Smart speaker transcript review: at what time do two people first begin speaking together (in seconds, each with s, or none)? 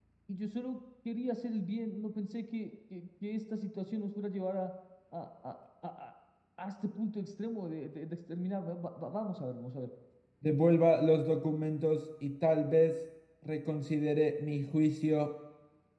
none